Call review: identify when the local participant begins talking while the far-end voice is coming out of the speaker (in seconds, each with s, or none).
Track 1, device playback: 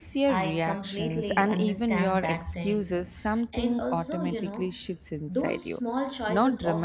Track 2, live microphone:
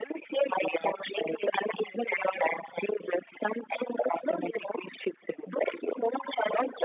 none